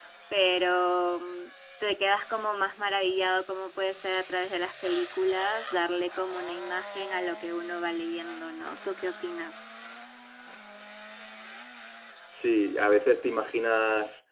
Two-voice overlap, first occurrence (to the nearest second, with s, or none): none